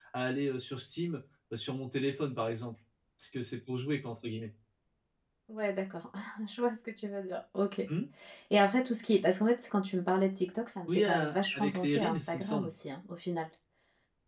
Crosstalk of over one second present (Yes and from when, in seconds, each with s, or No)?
Yes, from 10.9 s